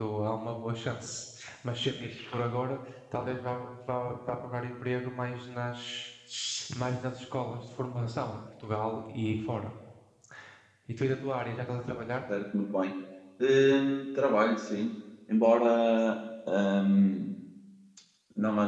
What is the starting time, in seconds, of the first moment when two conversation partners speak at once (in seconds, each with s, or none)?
none